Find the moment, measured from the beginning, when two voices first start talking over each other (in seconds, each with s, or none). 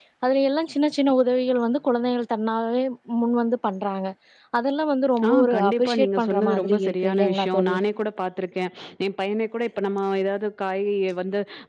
5.3 s